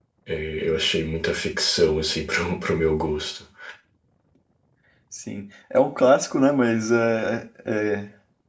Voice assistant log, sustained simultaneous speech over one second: none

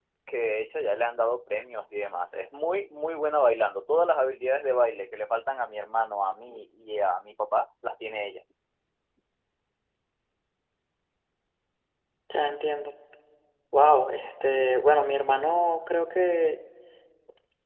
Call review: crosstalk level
none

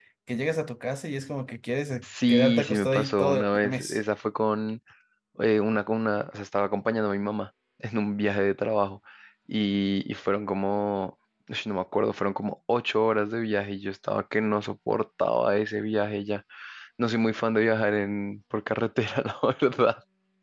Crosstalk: present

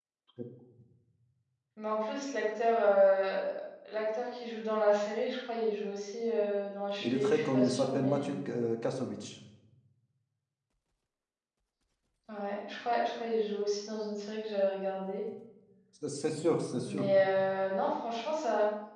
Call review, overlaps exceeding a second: present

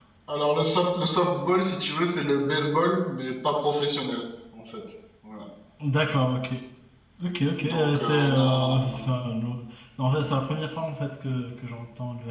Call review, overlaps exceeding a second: present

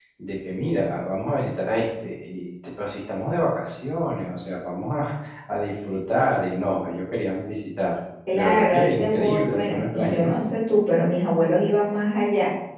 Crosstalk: present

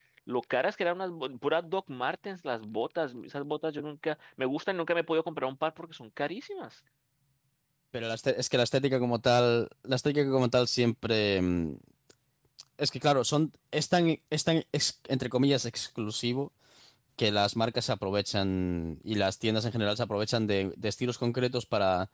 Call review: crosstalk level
none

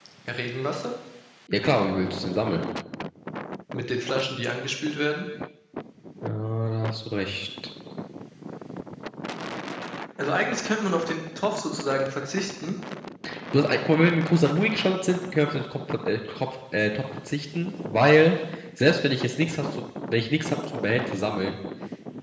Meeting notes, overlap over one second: none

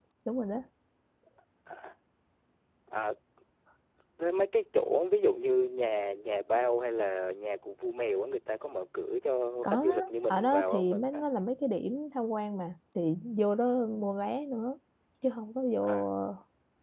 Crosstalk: present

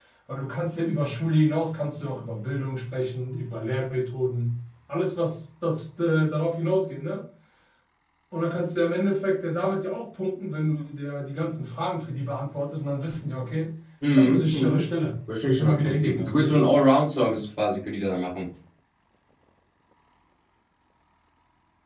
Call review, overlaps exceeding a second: present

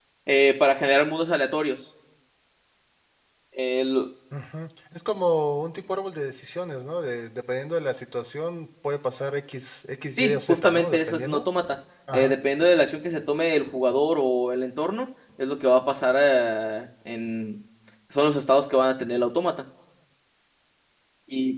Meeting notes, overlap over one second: present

